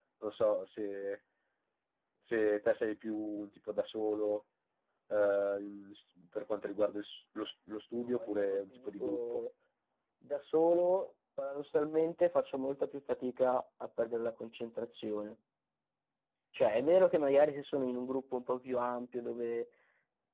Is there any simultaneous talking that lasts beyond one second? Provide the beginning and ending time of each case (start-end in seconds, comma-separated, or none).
8.1-9.4